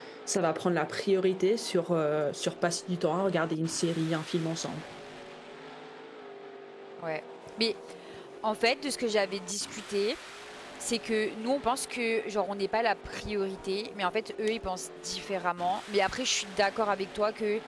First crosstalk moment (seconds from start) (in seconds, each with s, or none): none